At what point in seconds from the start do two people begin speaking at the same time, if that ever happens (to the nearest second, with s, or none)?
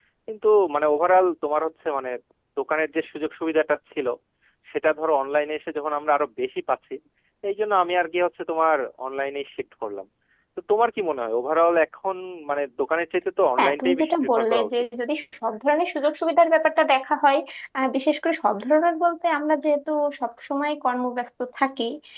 14 s